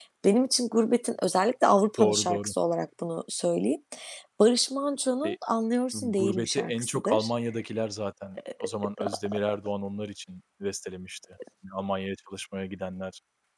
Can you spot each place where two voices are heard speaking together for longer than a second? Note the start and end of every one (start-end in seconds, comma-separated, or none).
5.9-7.3